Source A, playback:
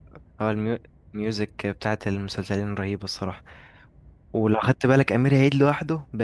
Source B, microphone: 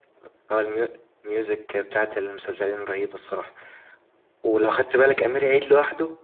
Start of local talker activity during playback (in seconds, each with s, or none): none